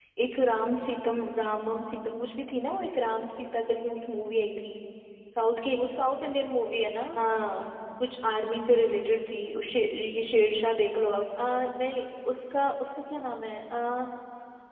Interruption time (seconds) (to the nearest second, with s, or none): none